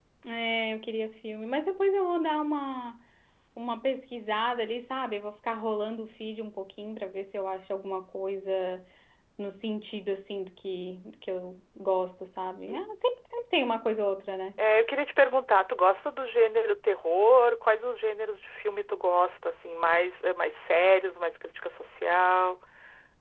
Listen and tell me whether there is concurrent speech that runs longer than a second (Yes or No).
No